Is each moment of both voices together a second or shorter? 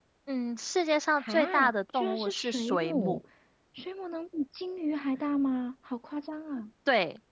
No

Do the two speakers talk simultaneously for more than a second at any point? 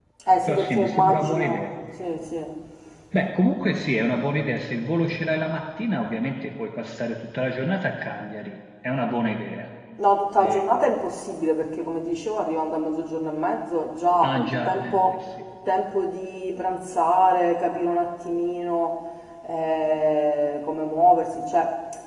Yes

